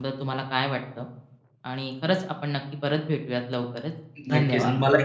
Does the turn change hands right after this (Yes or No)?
Yes